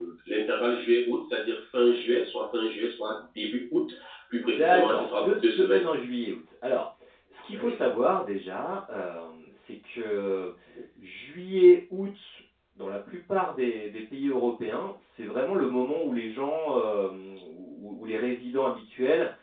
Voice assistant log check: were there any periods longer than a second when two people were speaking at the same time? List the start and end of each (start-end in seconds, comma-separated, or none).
4.5-5.9